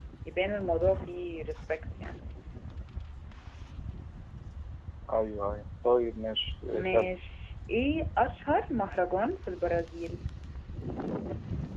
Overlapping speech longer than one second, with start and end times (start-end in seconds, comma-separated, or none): none